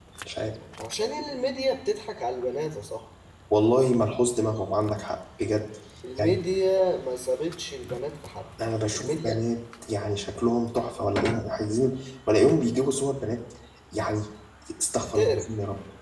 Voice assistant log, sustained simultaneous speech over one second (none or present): none